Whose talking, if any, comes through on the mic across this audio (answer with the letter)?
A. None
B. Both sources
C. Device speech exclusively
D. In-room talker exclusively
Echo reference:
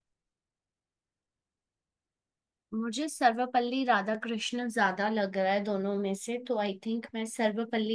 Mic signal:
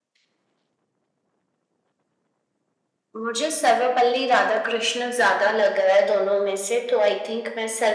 C